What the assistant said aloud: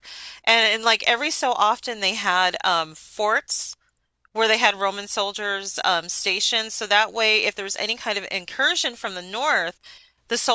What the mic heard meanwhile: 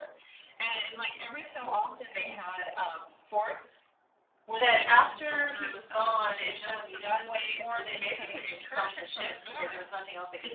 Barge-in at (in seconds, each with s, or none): 4.5 s